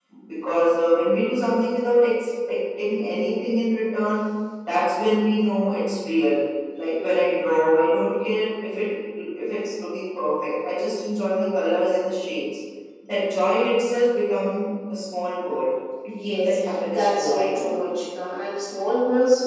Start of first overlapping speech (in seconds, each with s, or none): 16.1 s